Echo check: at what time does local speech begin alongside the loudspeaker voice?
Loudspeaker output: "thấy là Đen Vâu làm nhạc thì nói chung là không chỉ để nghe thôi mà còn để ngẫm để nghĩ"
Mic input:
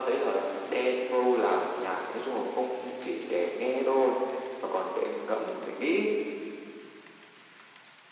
none

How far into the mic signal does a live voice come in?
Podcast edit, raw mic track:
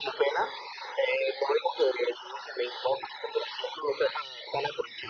none

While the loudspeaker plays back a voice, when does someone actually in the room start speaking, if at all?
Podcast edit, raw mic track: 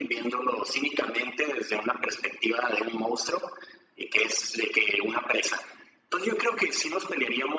none

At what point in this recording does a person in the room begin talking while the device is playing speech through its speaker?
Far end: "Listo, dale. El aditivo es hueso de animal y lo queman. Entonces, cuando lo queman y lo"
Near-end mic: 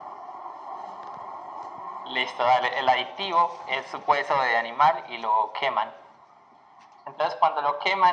none

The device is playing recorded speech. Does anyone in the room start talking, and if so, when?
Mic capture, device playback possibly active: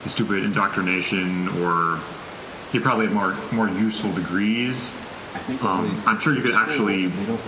5.3 s

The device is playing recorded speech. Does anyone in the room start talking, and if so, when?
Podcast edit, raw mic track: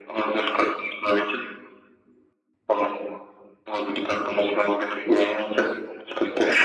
none

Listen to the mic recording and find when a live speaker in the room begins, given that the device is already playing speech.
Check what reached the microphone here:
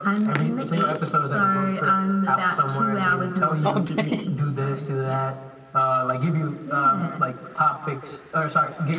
3.6 s

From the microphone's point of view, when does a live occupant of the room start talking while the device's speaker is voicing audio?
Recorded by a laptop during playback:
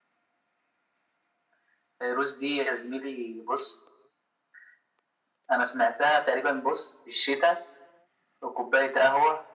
none

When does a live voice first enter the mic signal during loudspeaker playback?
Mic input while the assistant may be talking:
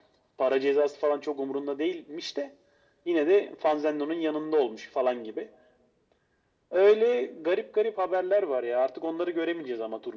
none

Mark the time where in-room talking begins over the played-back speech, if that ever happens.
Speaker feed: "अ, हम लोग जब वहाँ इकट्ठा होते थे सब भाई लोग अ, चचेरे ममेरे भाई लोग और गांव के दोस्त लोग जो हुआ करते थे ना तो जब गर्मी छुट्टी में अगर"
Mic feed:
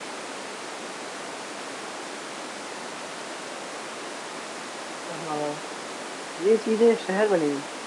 5.2 s

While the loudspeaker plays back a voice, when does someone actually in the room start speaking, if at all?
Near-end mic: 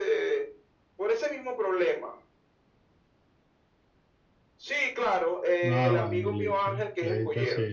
5.7 s

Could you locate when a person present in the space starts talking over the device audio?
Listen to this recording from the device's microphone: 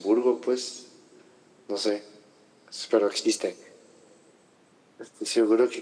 none

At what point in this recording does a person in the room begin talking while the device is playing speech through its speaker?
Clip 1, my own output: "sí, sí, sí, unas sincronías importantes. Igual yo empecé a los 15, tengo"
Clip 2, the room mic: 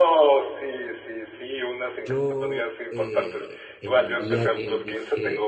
2.0 s

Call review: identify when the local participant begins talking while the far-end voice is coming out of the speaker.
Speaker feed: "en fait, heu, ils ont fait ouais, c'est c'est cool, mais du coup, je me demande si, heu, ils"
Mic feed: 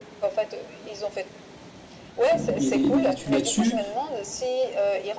2.3 s

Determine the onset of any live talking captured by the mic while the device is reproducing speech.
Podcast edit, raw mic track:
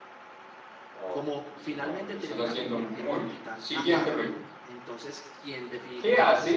1.1 s

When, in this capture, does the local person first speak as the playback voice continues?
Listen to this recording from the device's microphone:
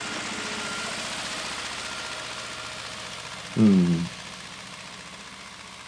3.6 s

